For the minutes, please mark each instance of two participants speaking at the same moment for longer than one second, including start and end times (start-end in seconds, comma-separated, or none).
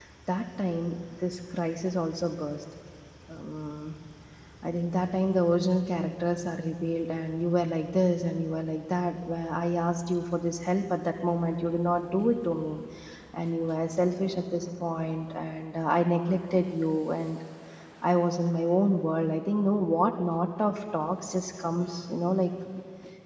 none